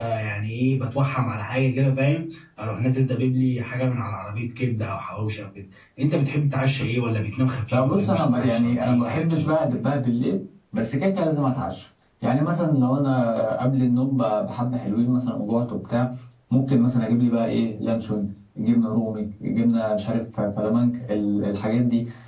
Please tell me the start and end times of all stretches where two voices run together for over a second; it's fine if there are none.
7.7-9.5

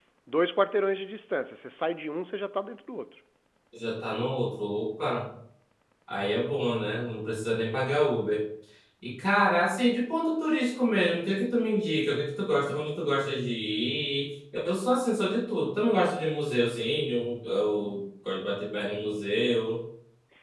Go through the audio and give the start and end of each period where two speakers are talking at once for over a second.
none

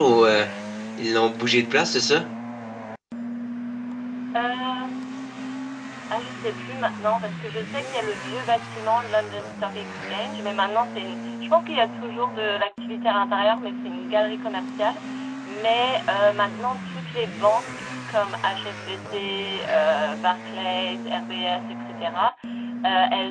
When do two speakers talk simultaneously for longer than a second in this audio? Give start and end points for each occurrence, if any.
none

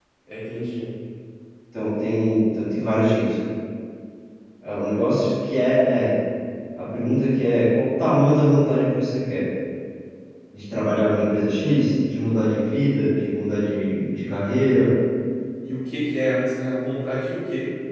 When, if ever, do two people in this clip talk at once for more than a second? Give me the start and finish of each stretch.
none

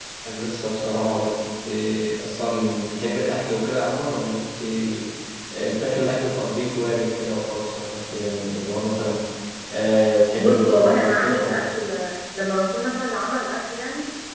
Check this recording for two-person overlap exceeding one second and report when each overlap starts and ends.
10.4-11.7

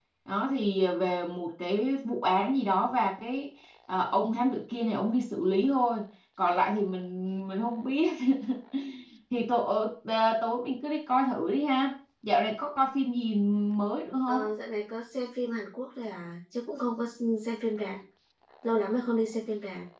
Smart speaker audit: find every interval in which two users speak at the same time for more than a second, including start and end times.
none

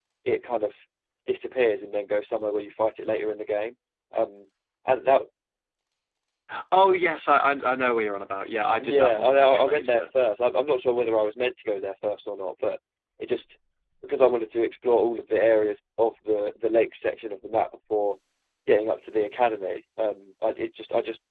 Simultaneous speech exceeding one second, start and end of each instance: 8.8-10.0

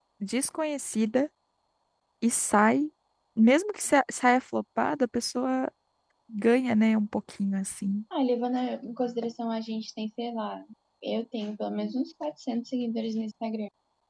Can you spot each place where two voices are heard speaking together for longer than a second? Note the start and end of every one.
none

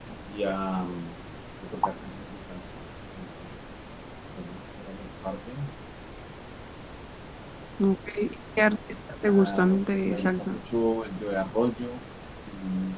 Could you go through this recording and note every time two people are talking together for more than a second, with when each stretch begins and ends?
9.3-10.6

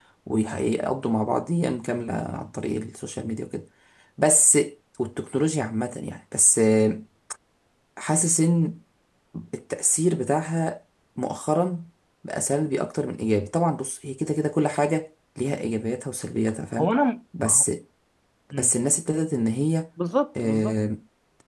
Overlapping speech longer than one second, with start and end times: none

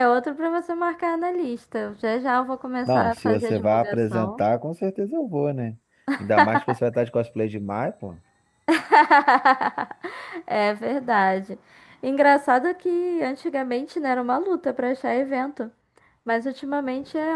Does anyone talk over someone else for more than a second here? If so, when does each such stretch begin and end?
2.9-4.4

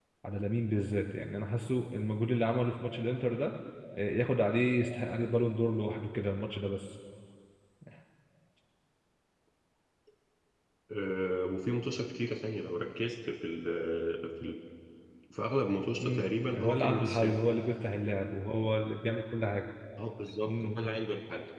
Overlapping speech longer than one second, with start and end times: 16.0-17.4

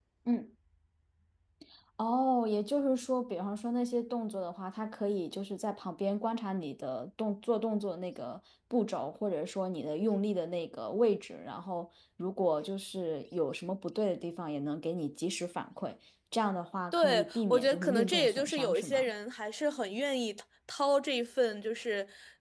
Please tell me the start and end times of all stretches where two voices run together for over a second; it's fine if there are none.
16.9-19.1

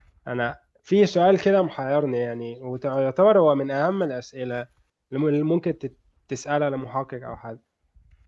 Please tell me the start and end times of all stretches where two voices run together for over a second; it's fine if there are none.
none

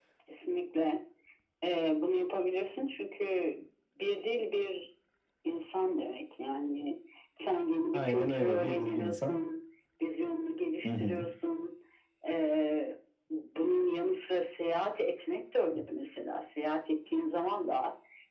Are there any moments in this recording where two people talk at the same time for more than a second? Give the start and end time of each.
7.9-9.4

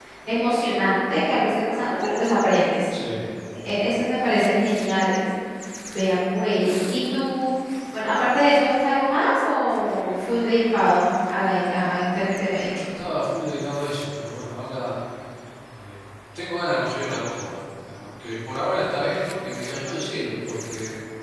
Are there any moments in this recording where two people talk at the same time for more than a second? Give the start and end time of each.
none

